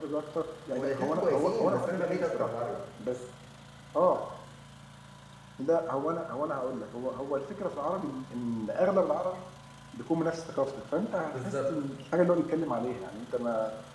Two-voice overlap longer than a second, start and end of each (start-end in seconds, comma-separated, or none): 0.8-2.5